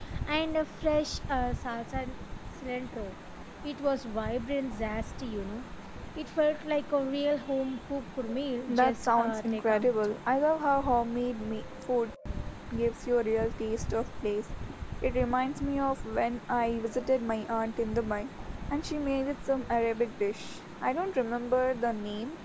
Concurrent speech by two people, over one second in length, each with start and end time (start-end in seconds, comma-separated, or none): 8.7-9.9